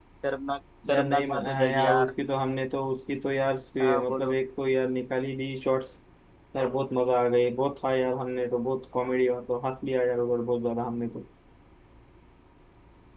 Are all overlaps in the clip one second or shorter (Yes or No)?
No